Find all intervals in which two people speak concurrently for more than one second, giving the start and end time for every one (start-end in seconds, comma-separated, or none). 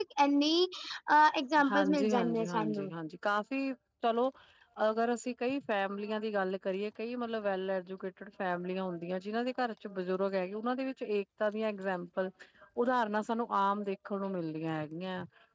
1.7-2.9